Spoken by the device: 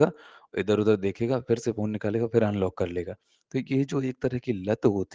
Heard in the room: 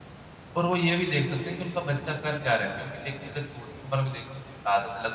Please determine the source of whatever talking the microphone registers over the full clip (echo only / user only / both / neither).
user only